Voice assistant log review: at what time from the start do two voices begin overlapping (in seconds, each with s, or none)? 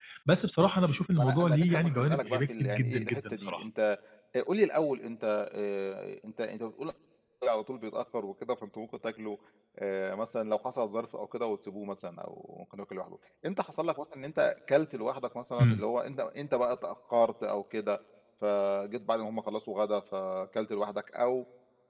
1.2 s